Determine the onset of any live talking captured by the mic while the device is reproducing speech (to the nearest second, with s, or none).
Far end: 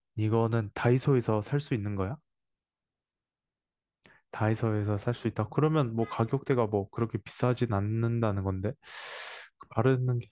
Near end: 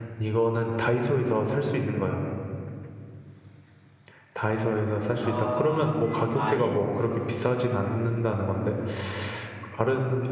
5 s